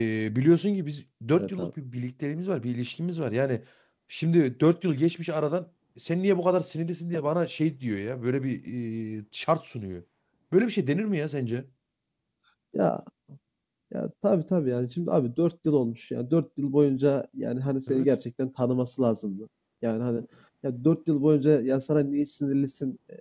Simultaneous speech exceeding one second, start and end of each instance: none

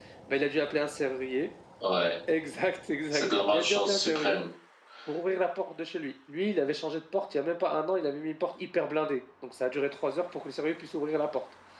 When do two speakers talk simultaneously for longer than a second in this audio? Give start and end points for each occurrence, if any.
3.1-4.4

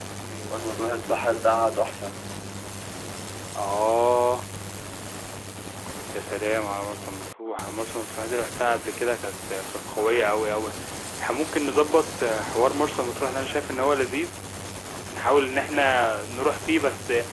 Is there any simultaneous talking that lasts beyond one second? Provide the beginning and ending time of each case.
none

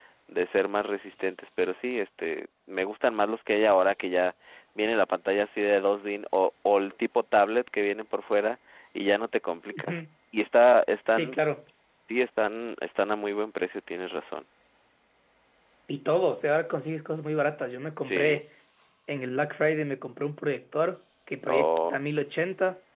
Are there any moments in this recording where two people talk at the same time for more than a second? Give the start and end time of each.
none

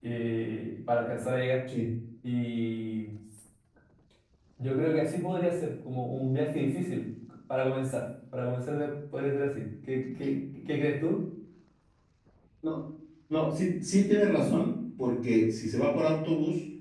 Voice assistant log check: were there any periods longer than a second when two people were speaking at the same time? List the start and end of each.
none

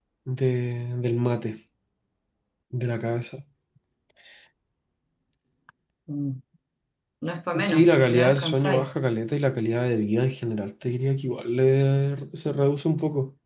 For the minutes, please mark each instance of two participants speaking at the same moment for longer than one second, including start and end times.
7.6-8.9

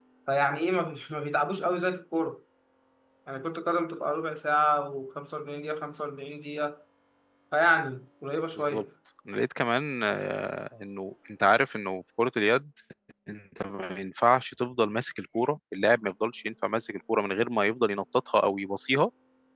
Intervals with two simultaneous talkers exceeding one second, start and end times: none

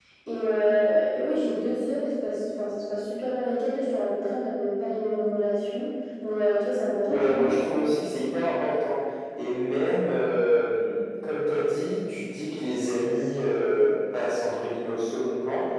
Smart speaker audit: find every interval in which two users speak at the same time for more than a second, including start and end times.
none

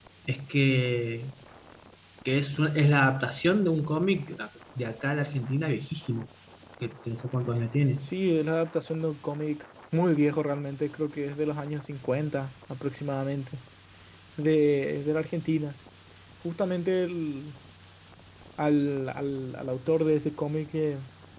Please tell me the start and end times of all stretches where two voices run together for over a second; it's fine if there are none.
none

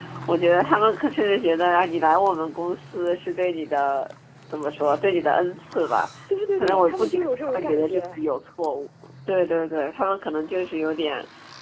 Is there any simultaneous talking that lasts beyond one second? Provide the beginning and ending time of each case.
6.6-8.2

